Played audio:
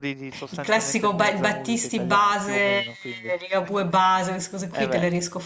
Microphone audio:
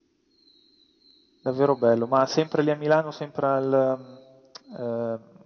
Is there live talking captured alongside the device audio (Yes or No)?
Yes